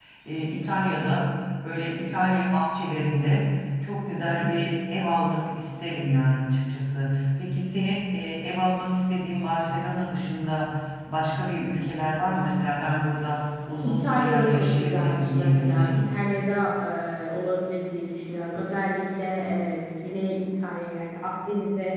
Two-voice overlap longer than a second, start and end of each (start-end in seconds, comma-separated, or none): 13.8-16.1